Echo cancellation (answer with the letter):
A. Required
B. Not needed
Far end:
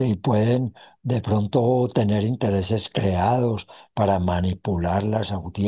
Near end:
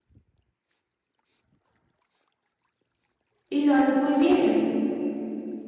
B